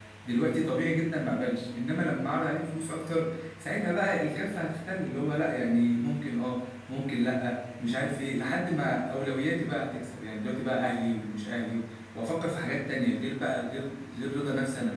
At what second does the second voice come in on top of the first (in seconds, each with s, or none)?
none